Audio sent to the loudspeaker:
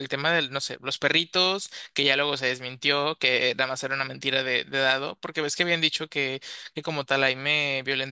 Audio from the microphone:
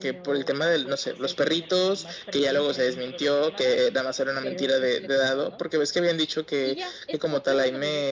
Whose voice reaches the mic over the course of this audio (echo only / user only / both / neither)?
both